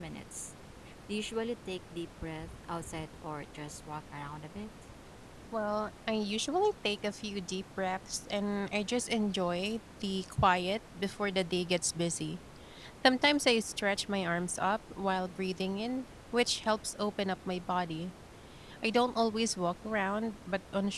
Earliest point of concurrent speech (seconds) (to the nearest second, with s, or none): none